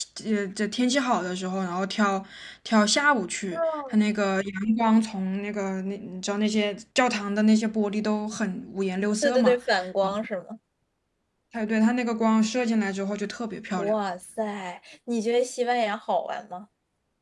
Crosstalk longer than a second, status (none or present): none